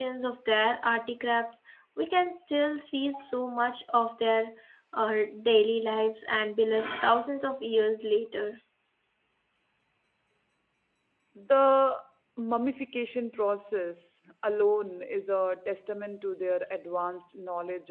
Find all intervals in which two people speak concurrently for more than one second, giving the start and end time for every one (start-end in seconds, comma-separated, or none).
none